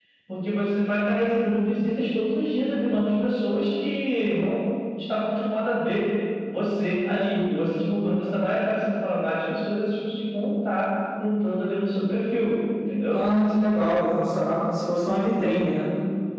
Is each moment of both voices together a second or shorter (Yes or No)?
Yes